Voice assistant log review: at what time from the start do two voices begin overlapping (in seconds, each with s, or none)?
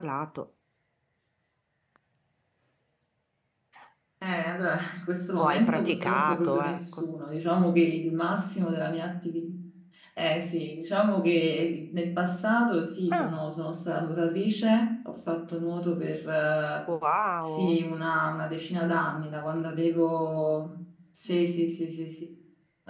5.4 s